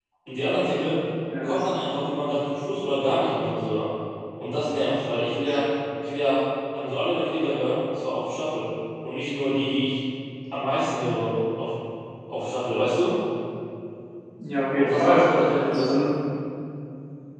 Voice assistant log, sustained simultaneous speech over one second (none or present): present